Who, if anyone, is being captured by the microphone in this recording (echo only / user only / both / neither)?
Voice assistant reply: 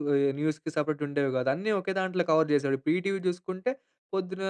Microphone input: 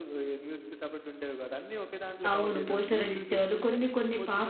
both